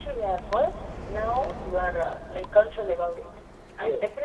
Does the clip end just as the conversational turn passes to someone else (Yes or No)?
No